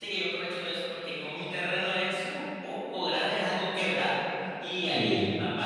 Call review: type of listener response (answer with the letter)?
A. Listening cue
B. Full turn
A